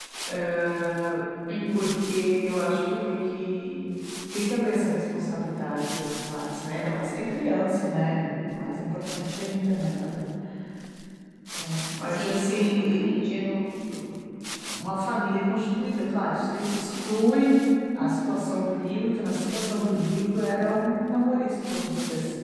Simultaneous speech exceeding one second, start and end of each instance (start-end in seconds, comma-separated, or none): 12.1-13.3